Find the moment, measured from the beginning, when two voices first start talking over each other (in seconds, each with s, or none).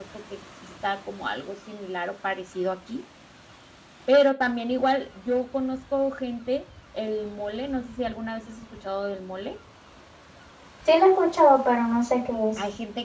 none